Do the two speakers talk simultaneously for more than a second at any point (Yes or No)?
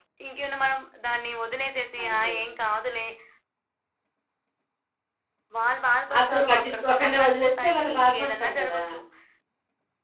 Yes